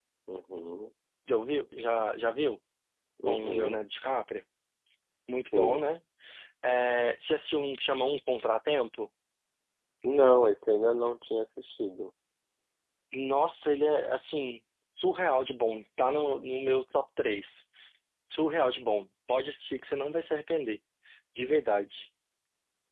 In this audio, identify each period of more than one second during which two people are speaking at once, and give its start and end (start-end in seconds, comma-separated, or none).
none